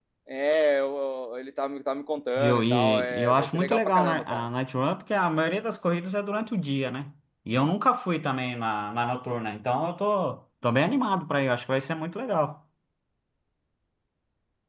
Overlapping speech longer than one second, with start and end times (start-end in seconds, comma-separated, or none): 2.4-4.5